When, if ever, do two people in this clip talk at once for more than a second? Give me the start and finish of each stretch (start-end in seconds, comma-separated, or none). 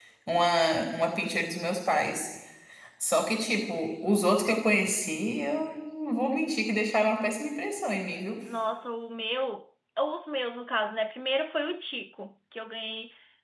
none